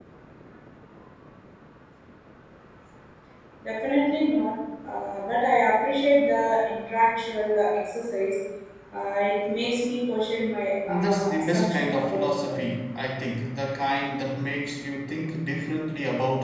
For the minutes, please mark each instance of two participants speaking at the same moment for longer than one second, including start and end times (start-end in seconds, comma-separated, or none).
10.9-12.6